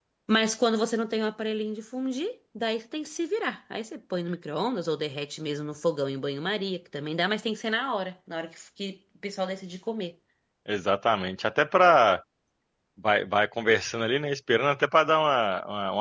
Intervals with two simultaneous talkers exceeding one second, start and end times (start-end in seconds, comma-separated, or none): none